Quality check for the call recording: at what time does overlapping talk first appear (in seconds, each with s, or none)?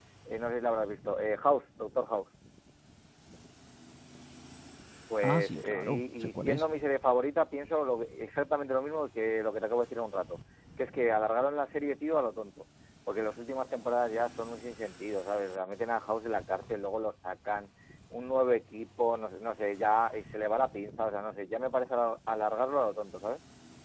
5.2 s